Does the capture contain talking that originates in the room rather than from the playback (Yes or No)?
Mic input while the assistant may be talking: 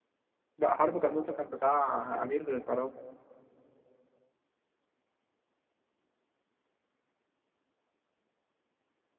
Yes